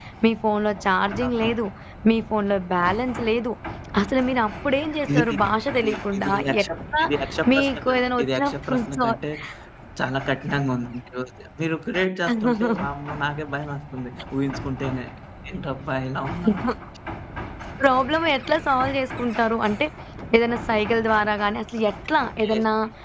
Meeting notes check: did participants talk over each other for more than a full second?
Yes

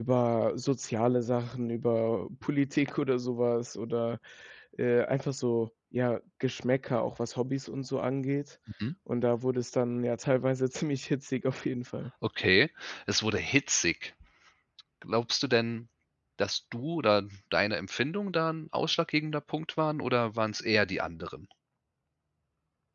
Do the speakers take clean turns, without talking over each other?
Yes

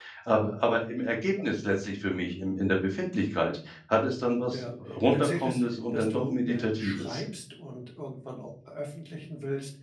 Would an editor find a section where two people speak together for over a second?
Yes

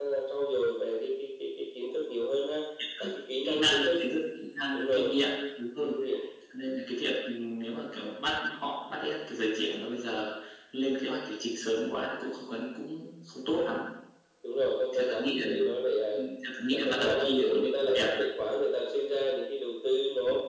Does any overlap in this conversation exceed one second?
Yes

